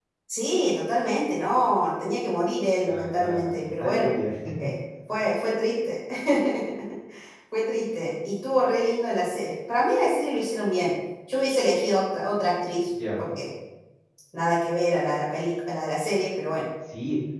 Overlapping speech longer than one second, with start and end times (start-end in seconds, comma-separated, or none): 2.8-4.1